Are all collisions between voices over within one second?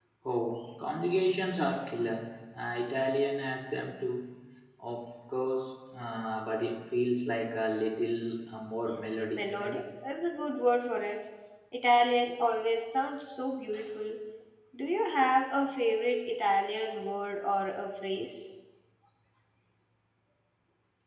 Yes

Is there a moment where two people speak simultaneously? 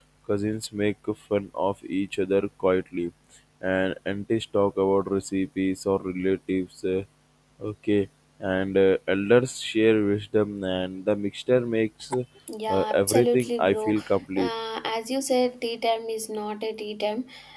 Yes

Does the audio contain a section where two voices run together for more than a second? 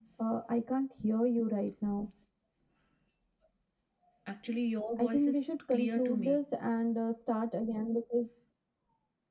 Yes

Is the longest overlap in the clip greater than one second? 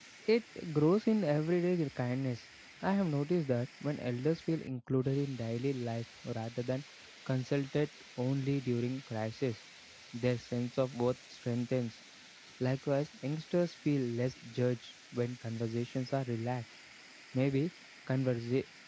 No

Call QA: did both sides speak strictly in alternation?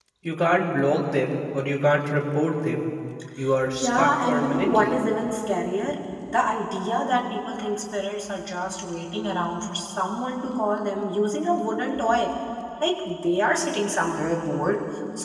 No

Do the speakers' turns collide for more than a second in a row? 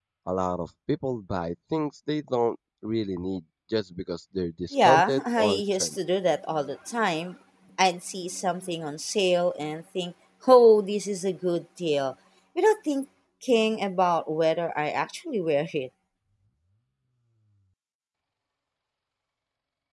Yes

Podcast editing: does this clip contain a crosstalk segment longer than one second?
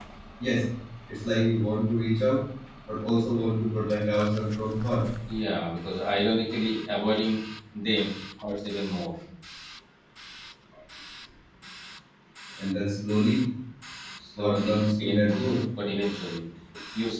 Yes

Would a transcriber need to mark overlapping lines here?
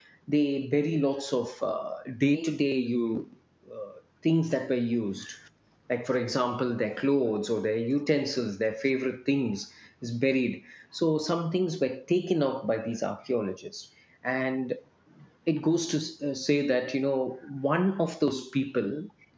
No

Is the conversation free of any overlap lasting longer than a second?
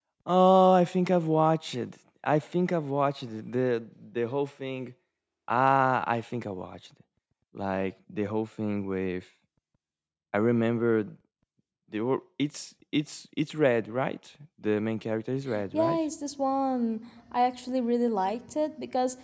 Yes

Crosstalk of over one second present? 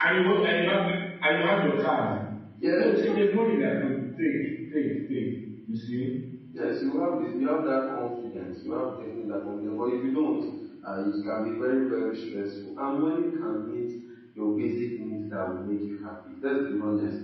No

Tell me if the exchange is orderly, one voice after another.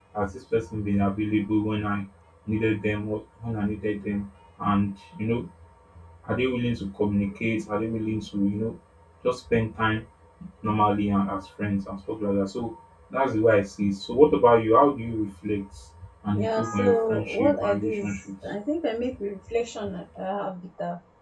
No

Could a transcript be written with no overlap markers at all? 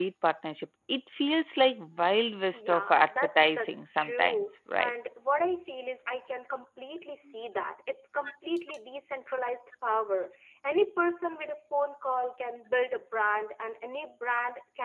No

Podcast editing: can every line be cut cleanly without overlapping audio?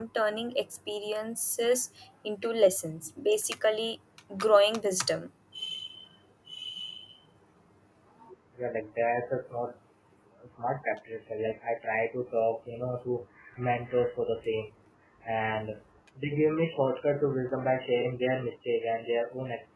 Yes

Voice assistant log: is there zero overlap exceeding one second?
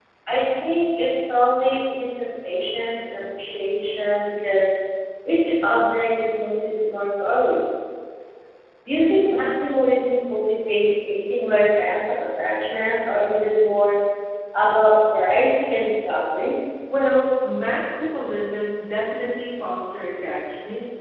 Yes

